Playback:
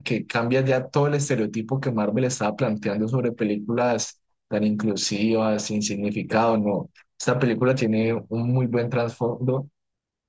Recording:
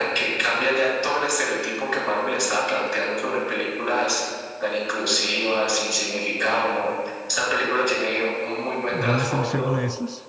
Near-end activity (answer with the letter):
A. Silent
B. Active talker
B